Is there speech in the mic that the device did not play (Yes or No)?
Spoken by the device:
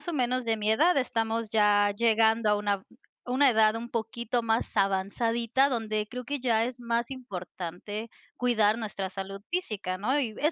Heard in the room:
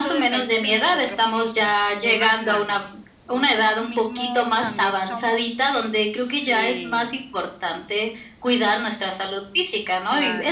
Yes